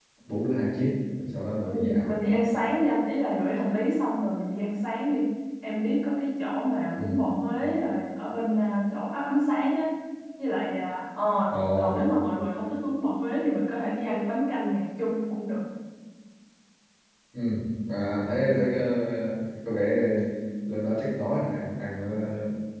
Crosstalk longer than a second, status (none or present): none